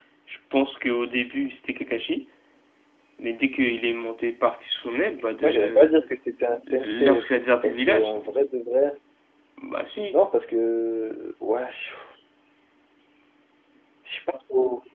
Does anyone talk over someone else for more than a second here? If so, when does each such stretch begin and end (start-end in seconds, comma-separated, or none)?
6.7-8.5